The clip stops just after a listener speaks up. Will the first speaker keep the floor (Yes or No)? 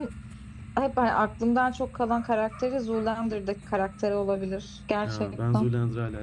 No